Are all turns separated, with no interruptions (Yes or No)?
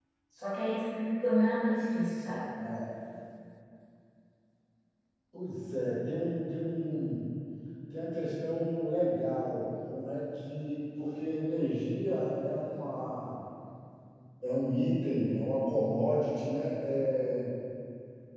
Yes